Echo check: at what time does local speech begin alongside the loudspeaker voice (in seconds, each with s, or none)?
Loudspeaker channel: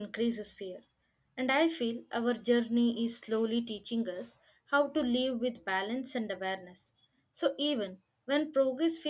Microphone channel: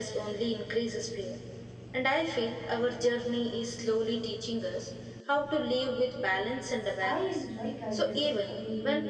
7.0 s